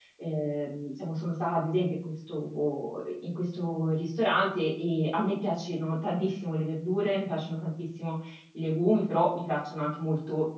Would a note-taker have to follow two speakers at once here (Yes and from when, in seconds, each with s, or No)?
No